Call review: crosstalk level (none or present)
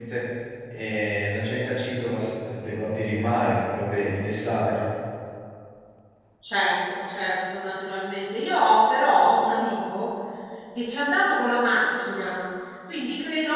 none